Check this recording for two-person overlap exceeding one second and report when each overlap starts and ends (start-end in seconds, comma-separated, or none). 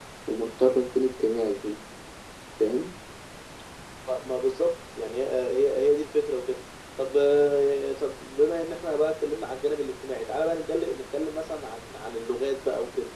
none